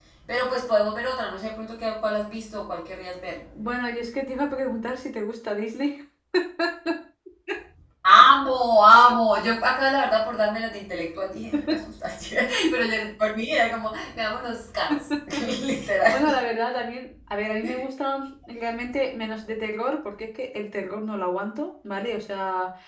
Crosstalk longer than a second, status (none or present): none